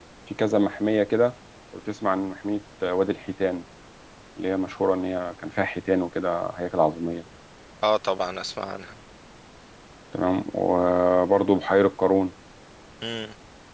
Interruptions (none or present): none